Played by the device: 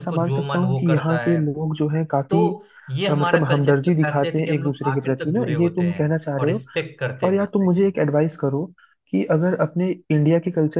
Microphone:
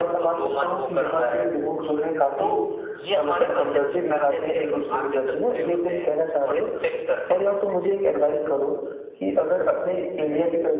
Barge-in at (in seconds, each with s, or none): none